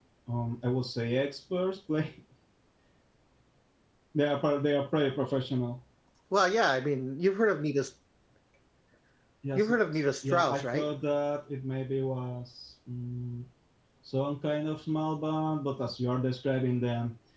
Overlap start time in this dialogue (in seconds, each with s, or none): 9.6 s